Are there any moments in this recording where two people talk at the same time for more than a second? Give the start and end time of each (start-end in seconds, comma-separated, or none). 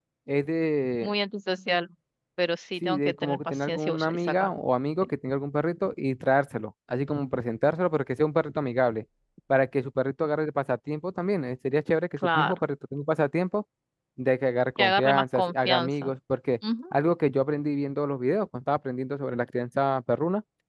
2.8-4.5, 14.8-16.1